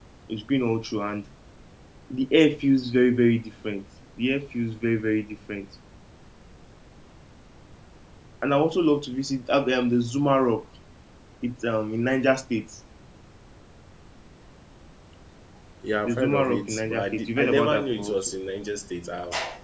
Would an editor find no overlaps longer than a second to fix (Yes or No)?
No